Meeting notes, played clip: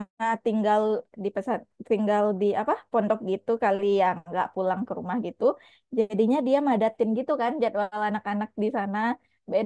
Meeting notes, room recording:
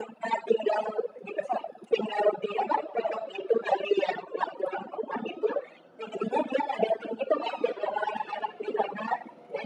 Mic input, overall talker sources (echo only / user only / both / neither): echo only